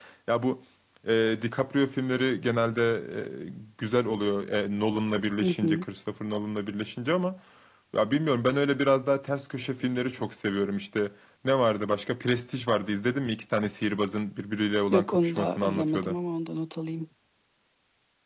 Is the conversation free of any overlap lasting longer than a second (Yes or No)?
No